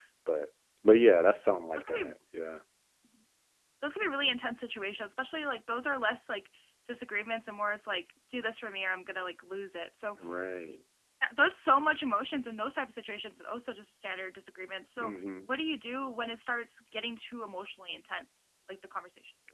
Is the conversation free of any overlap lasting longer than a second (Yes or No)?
Yes